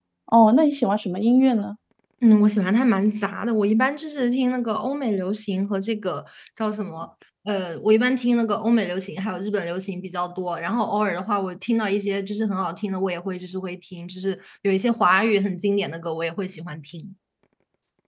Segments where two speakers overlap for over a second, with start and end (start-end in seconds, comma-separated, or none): none